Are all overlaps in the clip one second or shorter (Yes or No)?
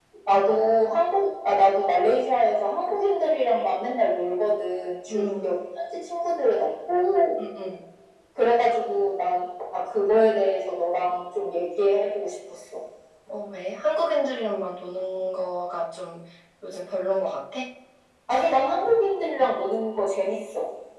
Yes